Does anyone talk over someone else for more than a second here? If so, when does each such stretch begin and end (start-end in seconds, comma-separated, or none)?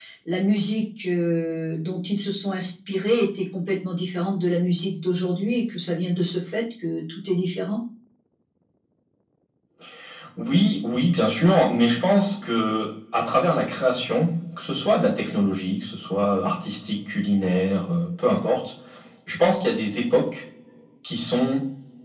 none